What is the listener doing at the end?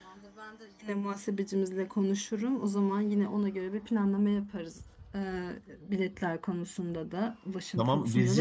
taking over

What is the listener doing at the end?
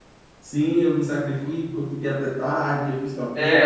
taking over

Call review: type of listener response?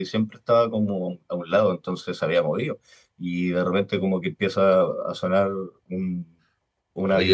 taking over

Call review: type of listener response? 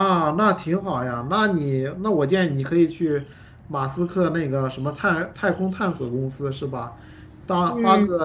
listening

